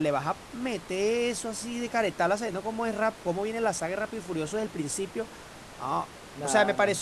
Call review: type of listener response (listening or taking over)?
listening